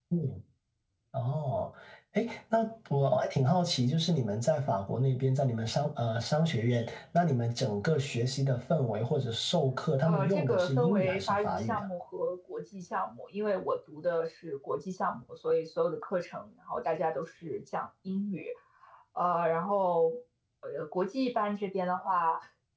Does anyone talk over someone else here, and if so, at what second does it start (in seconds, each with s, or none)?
10.1 s